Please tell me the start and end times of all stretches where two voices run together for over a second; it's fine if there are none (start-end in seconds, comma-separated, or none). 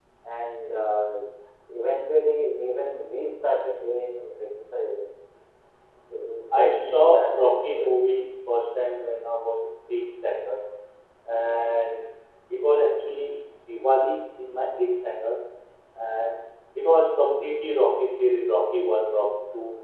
6.6-7.9